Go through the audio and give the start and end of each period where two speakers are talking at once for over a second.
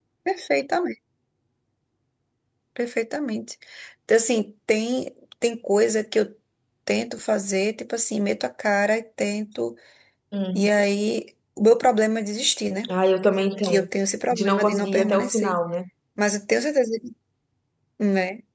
14.3-15.6

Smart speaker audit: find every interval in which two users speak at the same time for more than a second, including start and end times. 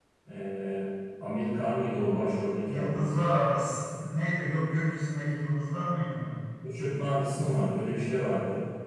none

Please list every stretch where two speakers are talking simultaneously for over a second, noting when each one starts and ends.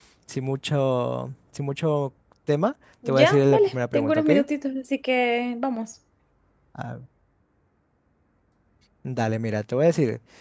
3.1-4.3

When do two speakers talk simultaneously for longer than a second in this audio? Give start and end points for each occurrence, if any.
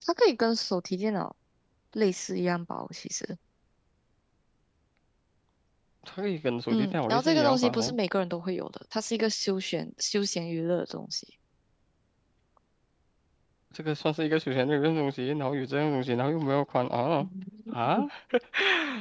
6.7-8.0

